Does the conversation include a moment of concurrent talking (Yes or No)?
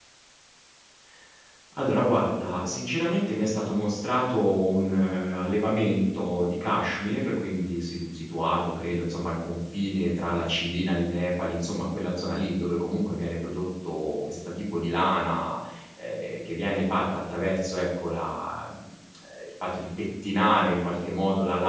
No